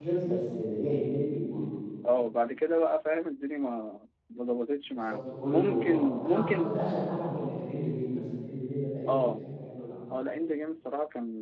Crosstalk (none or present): present